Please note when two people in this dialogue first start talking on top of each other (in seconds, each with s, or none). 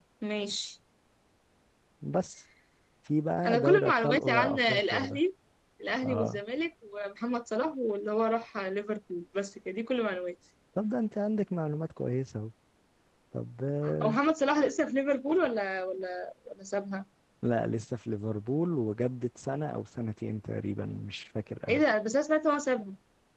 3.4 s